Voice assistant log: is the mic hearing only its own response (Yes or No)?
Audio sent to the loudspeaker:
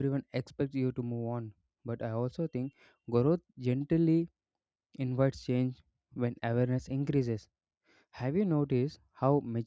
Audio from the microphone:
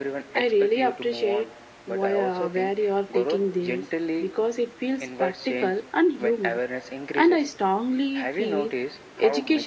No